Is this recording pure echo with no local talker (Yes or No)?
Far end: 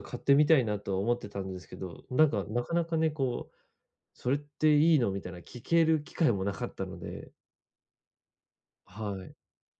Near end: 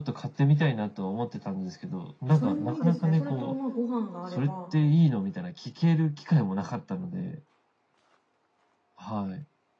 No